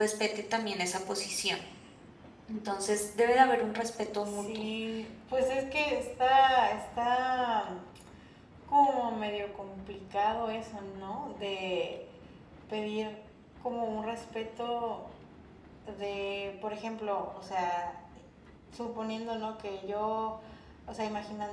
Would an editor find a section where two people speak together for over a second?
No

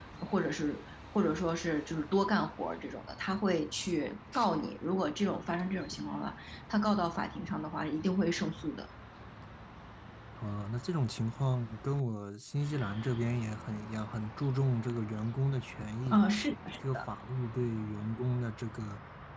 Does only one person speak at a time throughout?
Yes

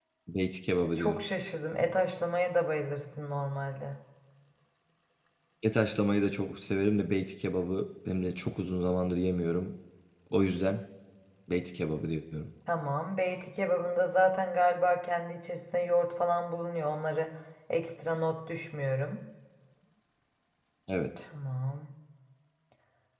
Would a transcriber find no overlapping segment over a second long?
Yes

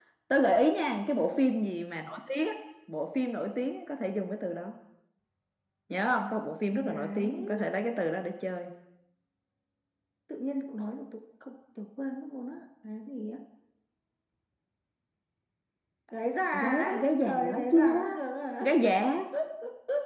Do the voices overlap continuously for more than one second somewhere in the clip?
Yes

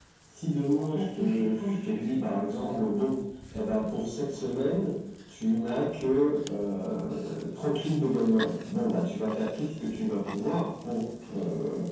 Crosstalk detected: Yes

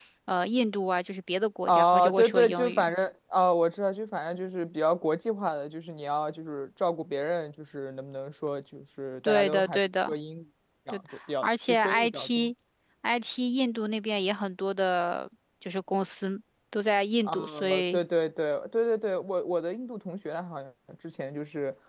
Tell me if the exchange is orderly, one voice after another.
No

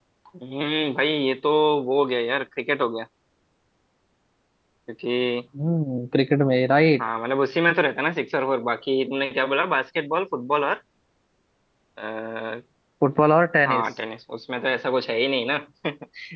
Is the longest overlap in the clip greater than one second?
No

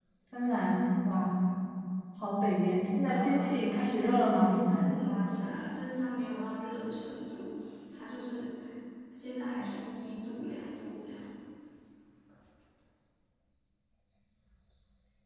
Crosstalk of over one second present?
Yes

